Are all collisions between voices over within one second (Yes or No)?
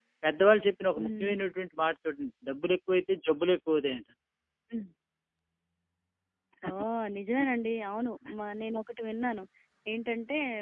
Yes